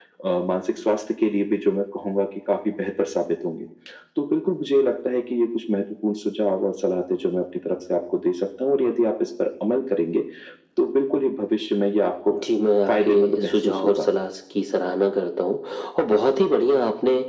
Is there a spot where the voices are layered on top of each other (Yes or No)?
Yes